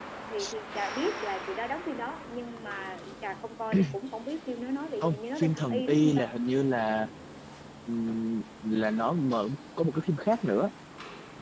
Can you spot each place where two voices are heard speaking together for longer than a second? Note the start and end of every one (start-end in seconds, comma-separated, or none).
5.0-6.3